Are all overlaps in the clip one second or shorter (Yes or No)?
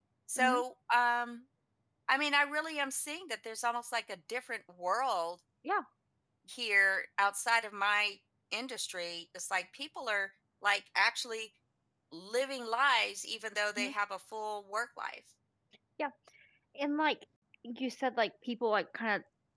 Yes